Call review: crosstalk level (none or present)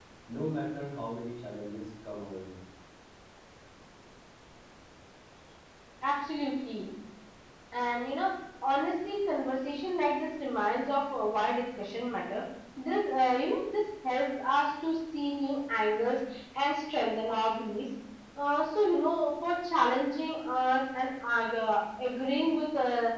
none